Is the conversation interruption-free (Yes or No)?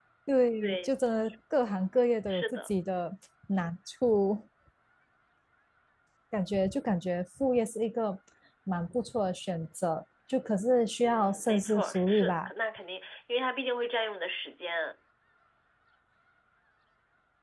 No